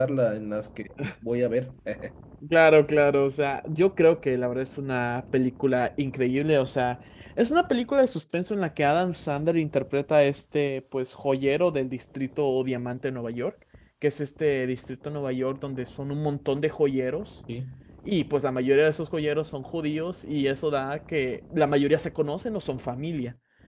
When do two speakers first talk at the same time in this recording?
none

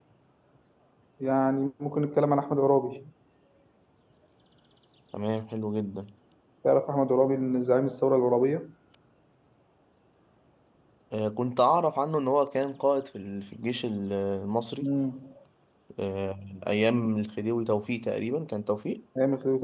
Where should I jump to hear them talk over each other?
none

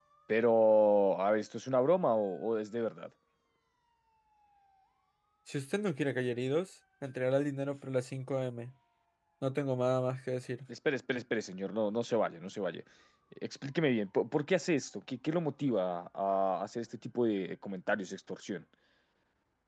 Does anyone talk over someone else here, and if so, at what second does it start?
none

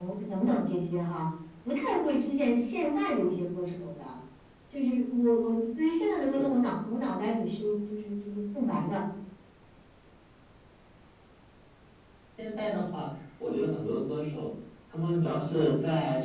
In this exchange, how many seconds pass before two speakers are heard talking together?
none

